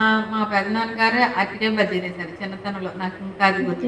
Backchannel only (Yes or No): No